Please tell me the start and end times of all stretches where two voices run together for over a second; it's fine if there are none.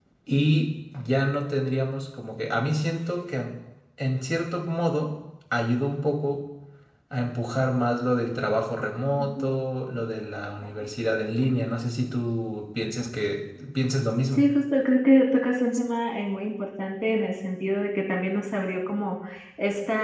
none

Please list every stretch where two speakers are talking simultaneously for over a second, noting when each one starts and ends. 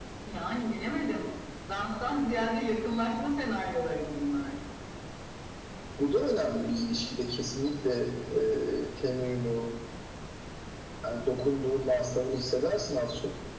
none

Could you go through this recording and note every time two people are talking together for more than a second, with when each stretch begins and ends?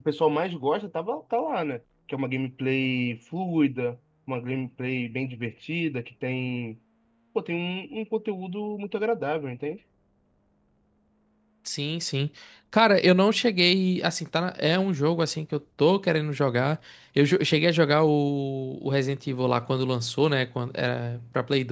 none

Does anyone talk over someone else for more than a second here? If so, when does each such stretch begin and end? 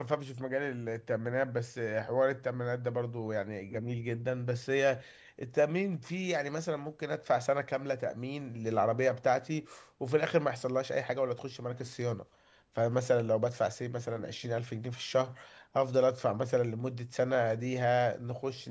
none

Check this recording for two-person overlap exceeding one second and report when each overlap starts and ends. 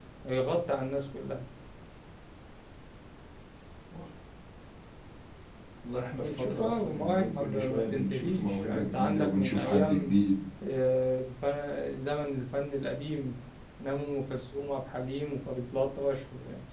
6.1-10.1

